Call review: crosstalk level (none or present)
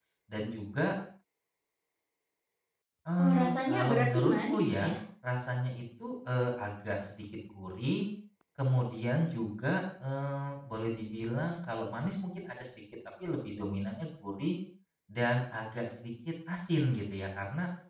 present